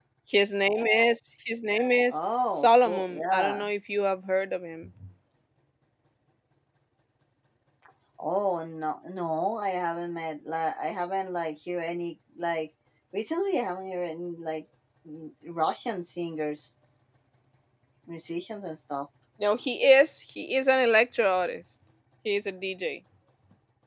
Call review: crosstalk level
present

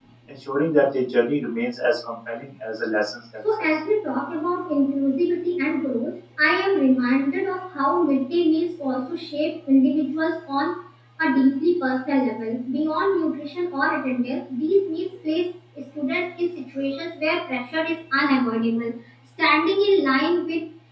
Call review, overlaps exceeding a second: none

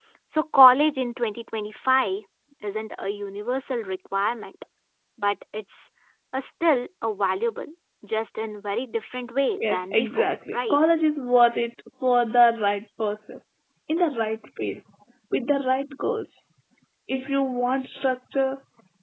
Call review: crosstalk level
present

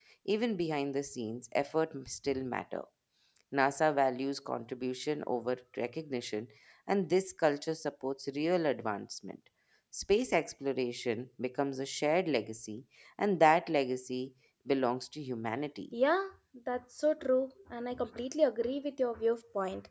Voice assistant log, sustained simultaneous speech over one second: none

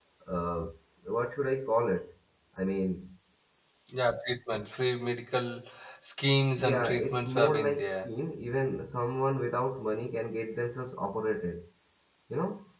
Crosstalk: present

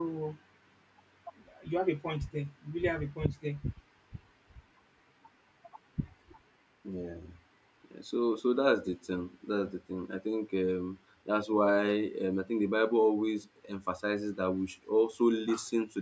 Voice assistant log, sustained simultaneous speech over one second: none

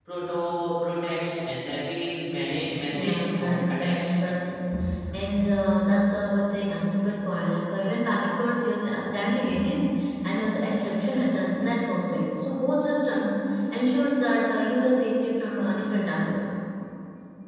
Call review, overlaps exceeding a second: present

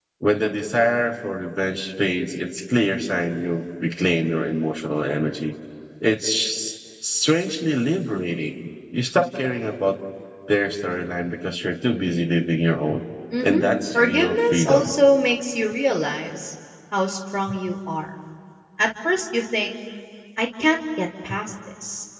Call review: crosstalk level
present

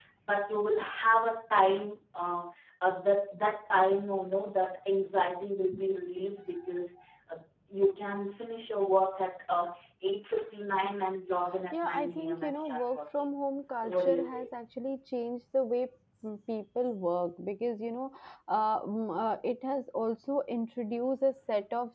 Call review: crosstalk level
present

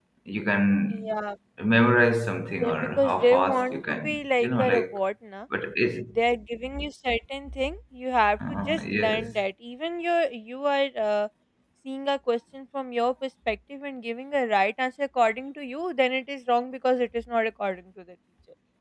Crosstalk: present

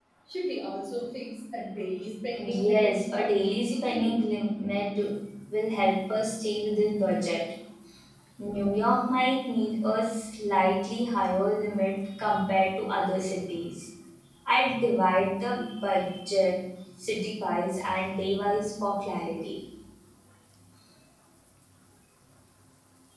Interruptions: present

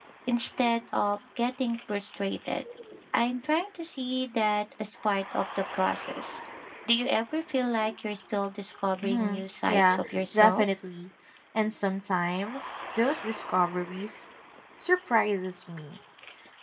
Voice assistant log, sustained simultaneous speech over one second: present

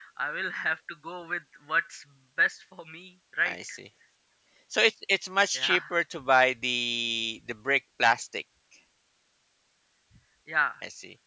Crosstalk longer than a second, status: none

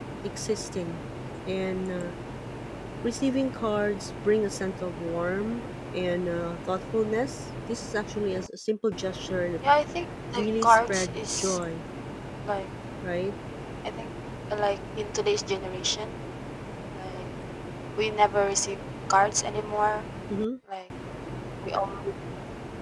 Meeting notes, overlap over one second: present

